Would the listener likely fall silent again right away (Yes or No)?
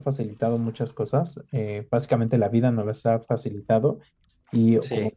Yes